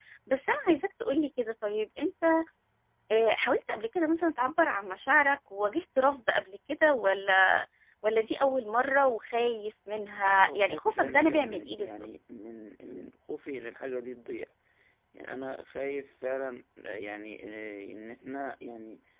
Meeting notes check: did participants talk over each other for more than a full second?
Yes, from 10.2 s

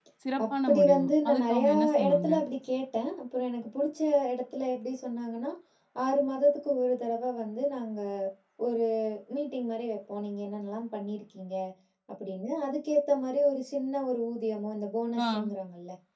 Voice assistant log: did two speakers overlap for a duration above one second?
Yes, from 0.7 s

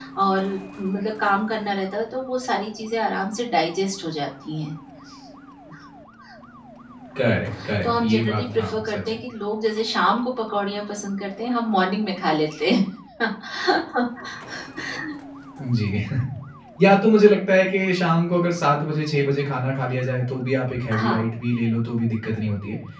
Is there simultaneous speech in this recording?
Yes, from 7.8 s

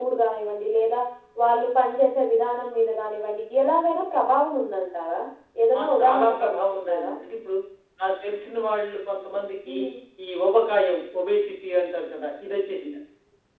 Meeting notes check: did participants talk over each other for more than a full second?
Yes, from 5.8 s

